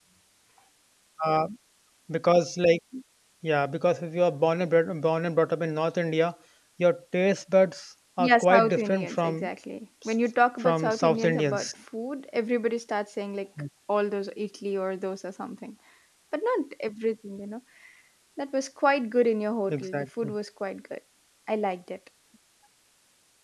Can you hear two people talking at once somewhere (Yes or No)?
Yes